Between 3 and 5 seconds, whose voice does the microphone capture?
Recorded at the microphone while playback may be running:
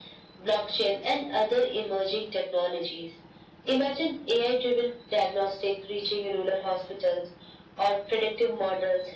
echo only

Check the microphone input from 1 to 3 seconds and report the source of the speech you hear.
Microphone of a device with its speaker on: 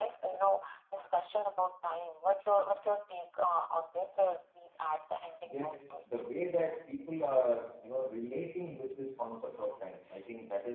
echo only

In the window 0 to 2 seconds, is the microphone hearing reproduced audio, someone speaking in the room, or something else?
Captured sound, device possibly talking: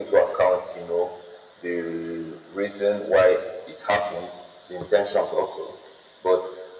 echo only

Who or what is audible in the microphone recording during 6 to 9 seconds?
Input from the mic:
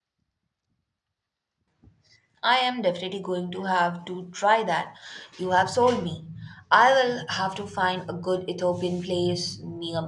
user only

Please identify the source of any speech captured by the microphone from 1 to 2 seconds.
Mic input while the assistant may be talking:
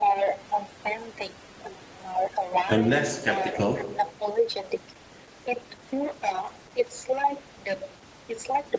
echo only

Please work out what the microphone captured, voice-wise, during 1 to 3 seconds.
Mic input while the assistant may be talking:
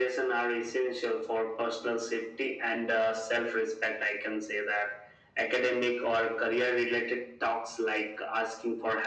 echo only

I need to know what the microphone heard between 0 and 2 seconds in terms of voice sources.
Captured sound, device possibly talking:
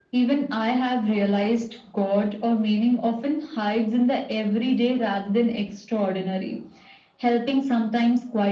echo only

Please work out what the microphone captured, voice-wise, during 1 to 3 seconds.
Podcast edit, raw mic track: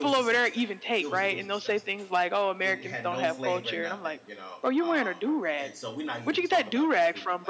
both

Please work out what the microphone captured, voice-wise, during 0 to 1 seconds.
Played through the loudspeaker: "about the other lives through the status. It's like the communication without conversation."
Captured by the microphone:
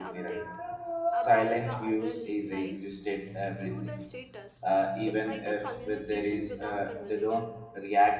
both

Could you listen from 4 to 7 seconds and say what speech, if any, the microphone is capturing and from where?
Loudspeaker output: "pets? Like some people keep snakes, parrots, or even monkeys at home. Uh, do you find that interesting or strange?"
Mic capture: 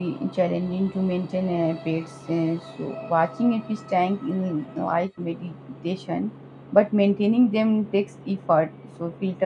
user only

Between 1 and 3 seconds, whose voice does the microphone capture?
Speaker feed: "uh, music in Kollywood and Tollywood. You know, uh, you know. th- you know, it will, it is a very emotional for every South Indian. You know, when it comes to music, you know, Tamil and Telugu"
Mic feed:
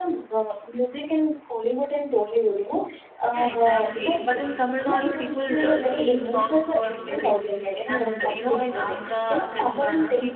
echo only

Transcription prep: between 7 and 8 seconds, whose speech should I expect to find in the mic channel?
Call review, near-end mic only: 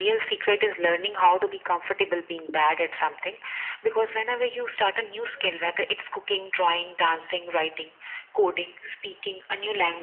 echo only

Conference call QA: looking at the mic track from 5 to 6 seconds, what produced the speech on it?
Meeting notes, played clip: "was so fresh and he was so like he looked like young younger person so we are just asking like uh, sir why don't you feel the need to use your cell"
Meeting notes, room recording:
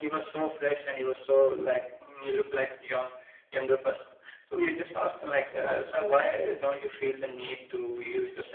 both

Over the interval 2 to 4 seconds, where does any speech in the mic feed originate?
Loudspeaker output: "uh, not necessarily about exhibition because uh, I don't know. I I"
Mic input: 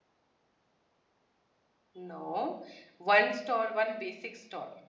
user only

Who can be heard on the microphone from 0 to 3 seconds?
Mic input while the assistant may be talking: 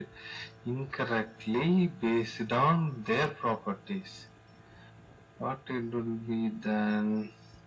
echo only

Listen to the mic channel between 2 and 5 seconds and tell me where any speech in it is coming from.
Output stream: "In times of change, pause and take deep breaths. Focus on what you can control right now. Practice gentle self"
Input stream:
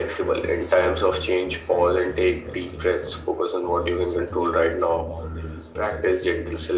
both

